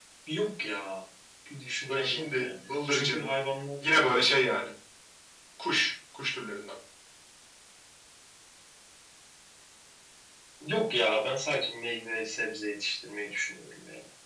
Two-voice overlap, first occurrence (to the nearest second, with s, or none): 2 s